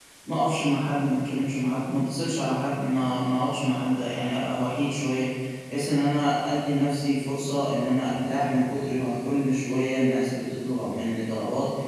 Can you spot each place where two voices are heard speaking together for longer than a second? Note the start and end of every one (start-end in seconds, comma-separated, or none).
none